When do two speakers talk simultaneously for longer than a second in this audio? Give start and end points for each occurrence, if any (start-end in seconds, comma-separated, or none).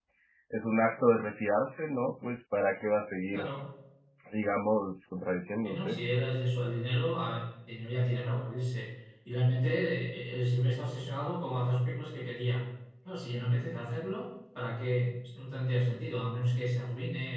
none